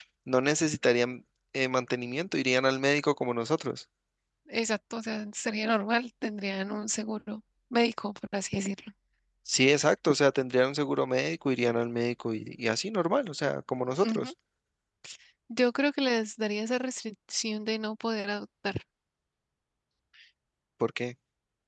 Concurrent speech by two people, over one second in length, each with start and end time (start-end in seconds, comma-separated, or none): none